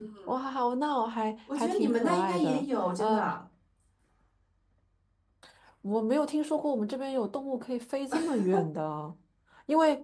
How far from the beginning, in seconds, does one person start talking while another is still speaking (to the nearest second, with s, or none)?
2 s